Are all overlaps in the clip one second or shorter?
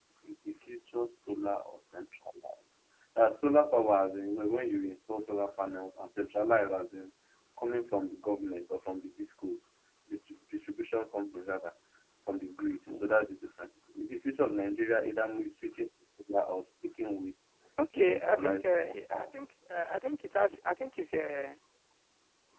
No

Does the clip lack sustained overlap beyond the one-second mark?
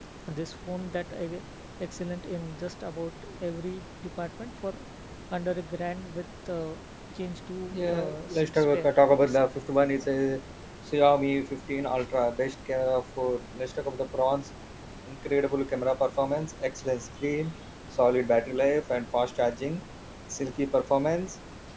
No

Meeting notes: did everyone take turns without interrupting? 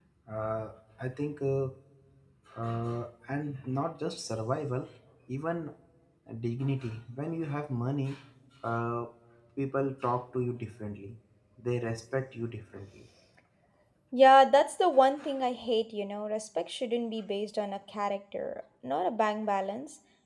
Yes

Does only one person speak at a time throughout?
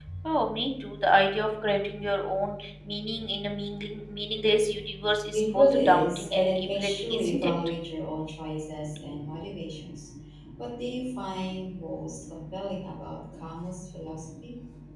No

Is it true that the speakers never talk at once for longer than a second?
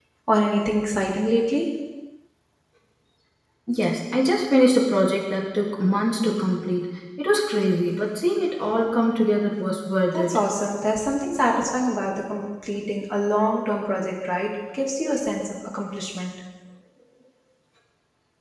Yes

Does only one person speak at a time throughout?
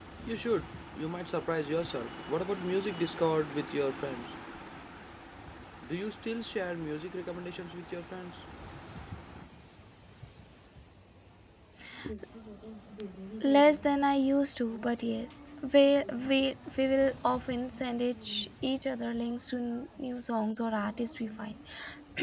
Yes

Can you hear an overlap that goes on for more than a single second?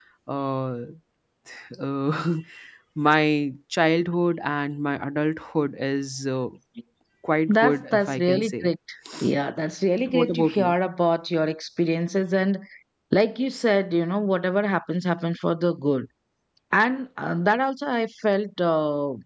Yes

